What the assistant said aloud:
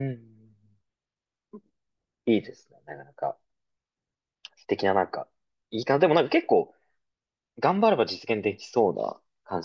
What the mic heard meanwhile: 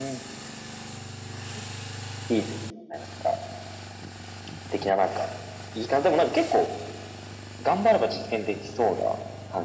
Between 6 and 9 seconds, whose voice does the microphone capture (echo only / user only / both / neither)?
echo only